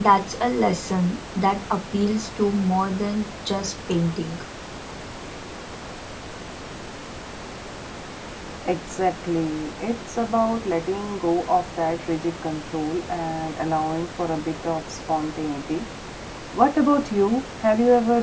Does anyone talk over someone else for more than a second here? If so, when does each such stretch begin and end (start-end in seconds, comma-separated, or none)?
none